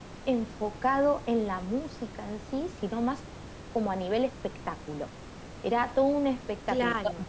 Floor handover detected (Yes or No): No